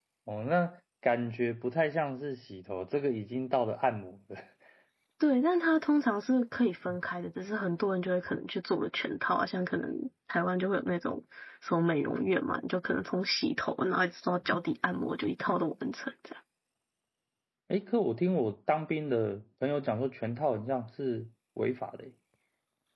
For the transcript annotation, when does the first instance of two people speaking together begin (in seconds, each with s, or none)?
none